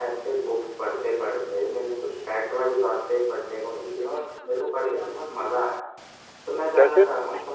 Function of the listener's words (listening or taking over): listening